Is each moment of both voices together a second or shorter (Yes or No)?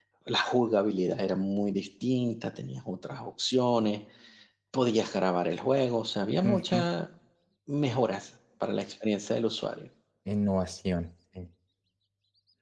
Yes